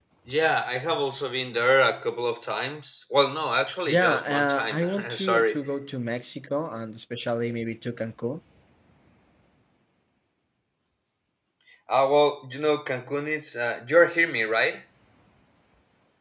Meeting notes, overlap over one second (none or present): present